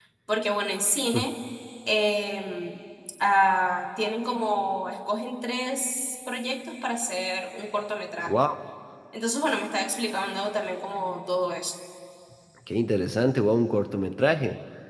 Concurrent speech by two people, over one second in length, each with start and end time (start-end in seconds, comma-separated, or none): none